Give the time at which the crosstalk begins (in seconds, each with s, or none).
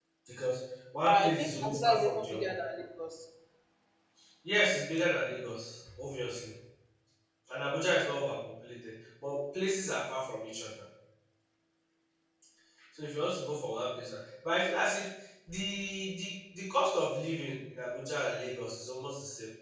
1.1 s